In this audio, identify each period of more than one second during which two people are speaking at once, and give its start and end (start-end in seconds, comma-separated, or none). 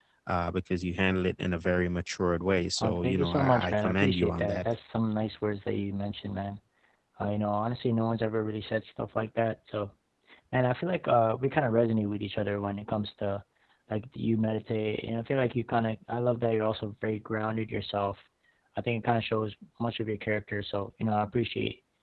2.8-4.7